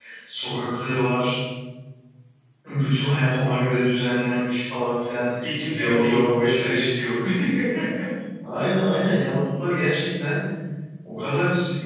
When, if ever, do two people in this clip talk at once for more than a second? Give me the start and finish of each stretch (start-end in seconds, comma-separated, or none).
5.4-6.9